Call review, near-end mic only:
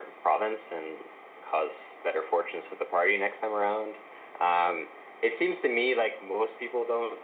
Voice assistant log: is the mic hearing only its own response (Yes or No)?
Yes